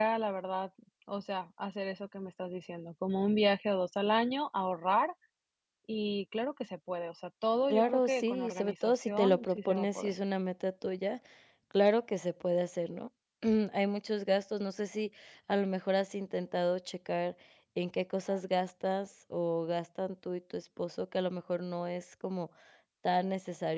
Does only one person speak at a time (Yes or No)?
No